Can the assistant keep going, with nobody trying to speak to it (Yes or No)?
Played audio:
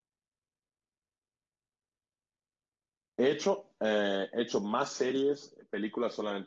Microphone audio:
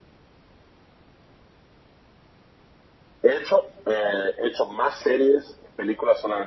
Yes